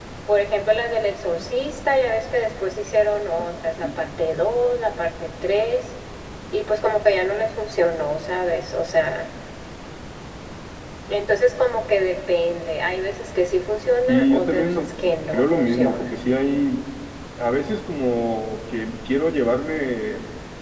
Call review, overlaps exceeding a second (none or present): present